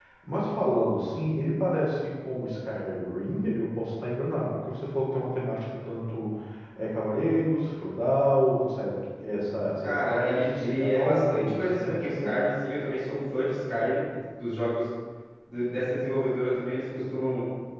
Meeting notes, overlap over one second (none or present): present